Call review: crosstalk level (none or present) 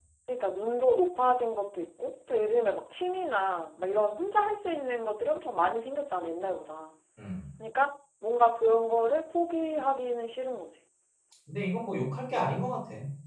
none